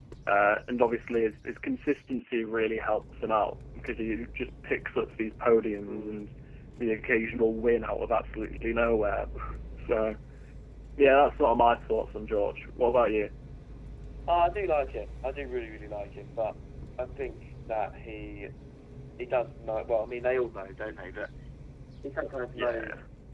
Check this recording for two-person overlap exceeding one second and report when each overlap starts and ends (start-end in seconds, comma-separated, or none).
none